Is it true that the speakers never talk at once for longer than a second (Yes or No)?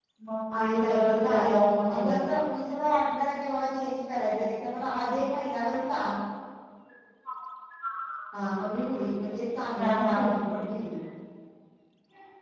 No